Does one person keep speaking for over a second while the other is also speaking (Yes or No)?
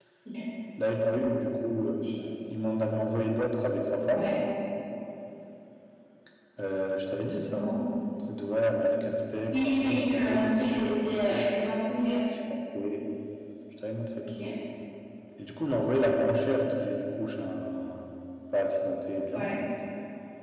Yes